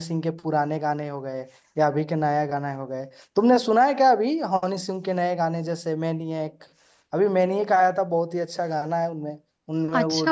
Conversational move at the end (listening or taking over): taking over